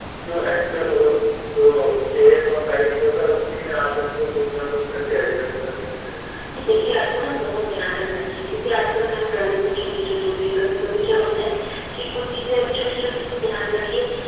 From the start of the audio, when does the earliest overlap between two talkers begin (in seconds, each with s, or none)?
none